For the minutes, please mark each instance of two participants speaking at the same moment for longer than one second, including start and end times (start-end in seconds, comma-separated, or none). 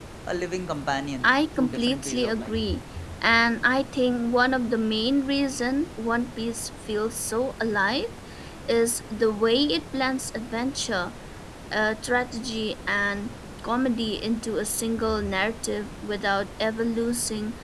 1.2-2.6